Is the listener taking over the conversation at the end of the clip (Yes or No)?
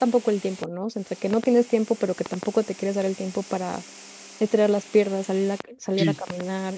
No